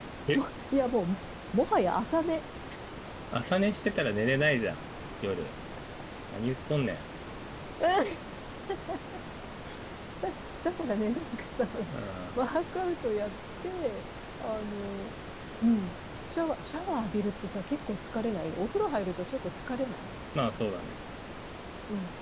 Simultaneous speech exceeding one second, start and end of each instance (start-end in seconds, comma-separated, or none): none